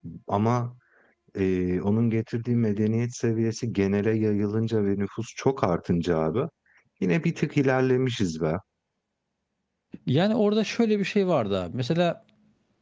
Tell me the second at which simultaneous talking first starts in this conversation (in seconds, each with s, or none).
none